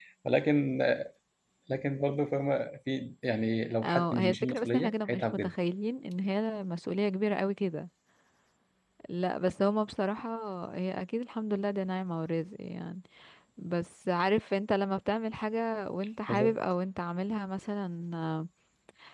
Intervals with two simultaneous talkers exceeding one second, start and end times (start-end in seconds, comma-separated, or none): 3.8-5.5